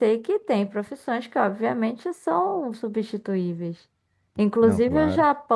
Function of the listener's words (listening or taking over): listening